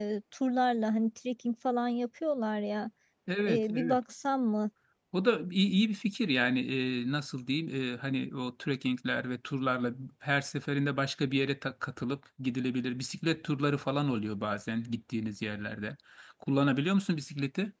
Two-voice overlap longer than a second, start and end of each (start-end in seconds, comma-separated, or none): none